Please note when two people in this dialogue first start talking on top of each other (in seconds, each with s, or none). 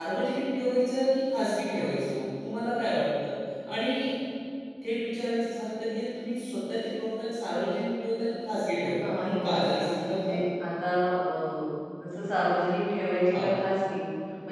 9.0 s